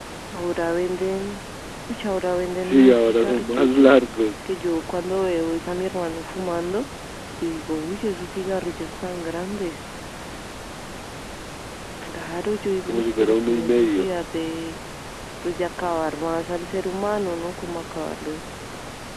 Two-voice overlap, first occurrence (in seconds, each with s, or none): 2.6 s